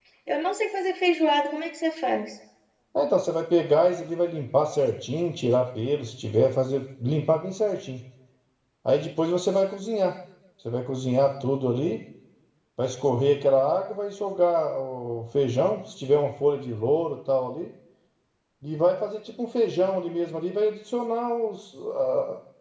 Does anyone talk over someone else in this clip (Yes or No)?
No